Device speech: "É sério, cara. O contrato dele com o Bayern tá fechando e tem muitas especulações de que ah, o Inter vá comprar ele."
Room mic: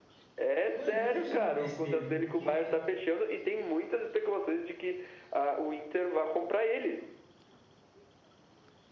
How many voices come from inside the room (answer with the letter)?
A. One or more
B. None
A